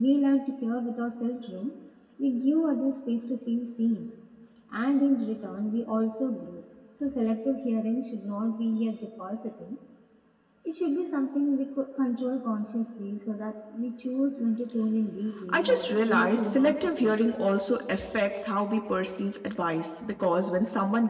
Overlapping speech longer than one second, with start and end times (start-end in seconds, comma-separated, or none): 15.5-17.2